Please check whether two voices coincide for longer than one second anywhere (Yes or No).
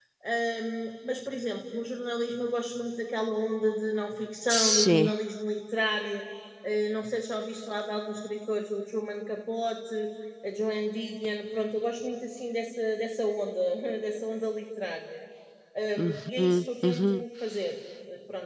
Yes